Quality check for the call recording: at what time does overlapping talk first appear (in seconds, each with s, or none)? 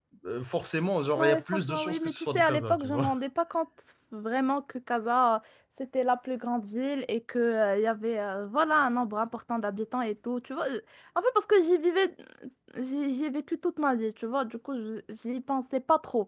1.2 s